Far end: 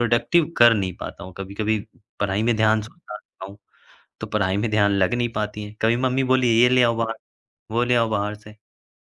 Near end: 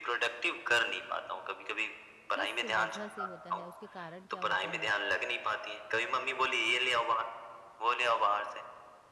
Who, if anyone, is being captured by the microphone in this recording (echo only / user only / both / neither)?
both